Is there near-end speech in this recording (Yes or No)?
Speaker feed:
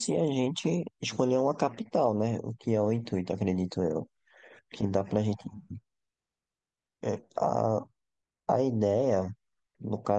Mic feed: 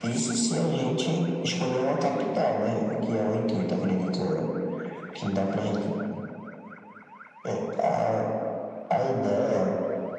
No